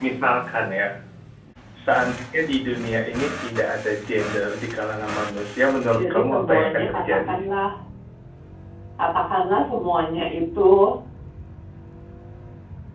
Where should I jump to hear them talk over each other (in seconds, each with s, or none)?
5.9 s